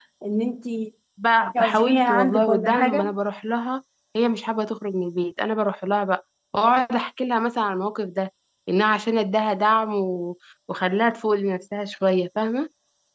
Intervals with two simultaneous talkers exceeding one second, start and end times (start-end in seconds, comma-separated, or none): 1.6-3.1